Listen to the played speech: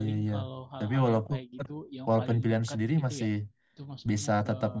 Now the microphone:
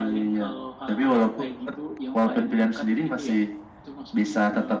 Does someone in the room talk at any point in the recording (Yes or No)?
No